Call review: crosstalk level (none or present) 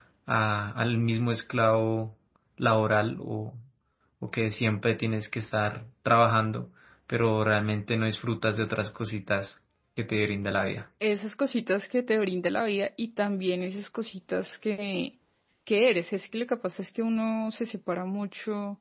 none